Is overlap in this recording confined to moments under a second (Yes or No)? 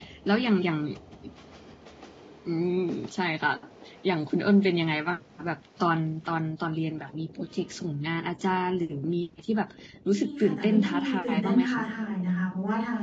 No